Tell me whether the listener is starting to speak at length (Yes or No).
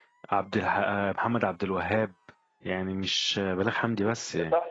Yes